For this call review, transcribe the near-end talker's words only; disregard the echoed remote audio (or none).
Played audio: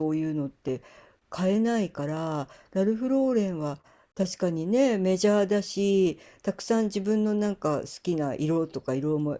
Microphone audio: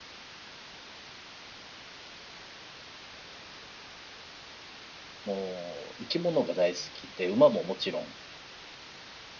もう生き物が大好きで、馬ももちろん